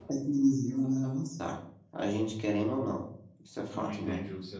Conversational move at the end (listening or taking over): taking over